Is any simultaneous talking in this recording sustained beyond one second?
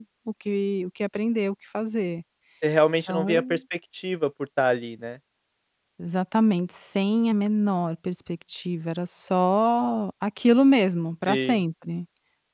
No

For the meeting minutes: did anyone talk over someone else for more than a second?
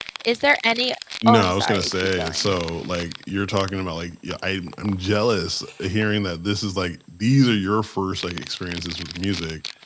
Yes, from 1.3 s

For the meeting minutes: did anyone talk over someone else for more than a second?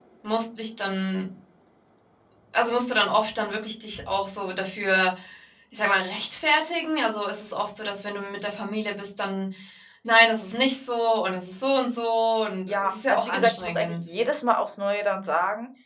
Yes, from 12.7 s

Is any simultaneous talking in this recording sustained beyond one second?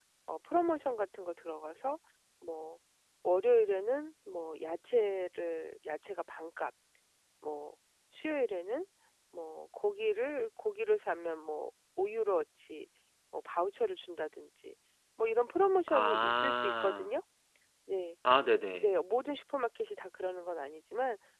Yes, from 15.9 s

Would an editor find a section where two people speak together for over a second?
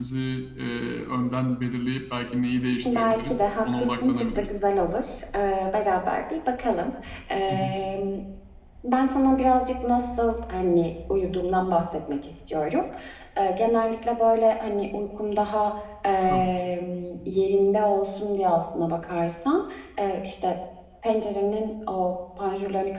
Yes, from 2.9 s

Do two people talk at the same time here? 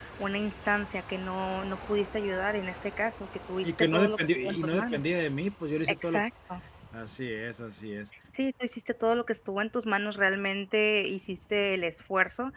Yes, from 3.6 s

